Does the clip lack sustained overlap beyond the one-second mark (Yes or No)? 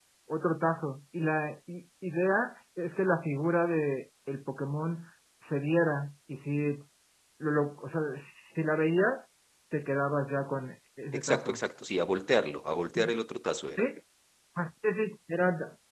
Yes